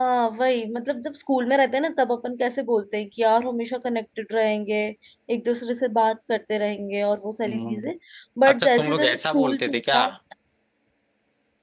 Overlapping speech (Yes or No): Yes